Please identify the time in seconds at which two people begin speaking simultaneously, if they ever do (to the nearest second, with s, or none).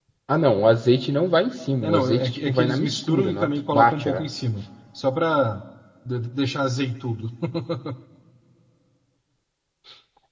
2 s